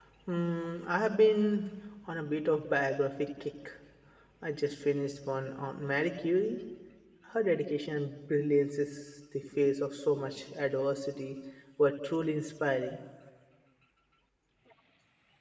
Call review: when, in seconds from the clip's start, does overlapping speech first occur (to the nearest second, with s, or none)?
none